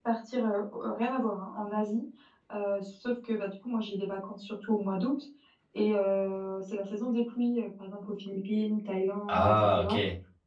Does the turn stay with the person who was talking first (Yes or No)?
Yes